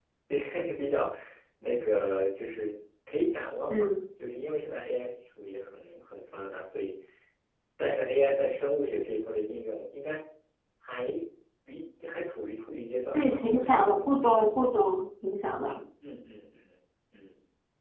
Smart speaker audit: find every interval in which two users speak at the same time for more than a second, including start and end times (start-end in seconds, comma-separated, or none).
13.1-14.4